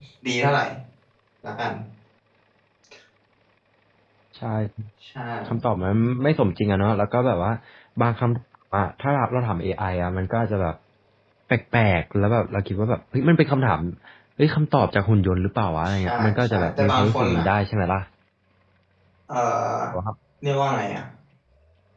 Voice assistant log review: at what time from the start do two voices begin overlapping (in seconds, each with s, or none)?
15.8 s